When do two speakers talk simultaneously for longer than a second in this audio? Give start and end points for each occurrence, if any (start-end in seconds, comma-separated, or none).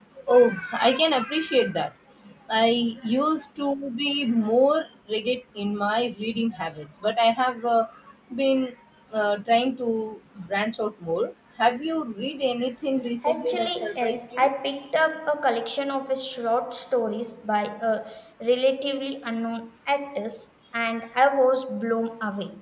13.2-14.5